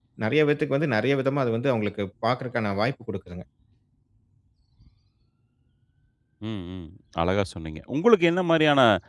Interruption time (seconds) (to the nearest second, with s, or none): none